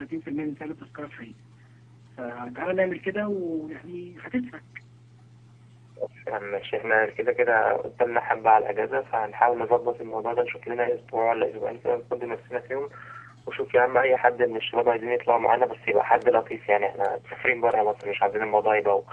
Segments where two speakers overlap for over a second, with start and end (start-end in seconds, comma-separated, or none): none